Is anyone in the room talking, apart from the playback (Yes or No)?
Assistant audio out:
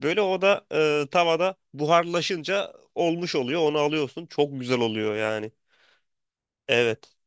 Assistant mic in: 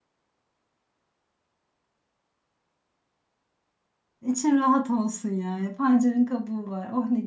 Yes